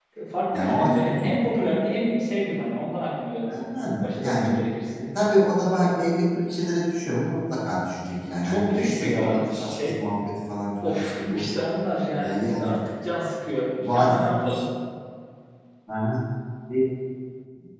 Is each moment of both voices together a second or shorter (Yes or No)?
No